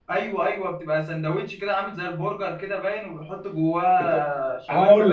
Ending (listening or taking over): taking over